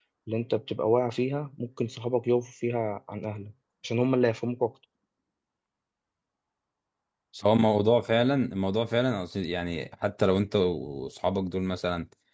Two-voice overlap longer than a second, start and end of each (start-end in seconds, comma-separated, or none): none